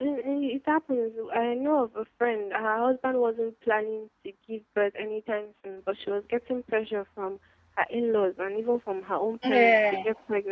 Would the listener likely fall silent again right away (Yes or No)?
Yes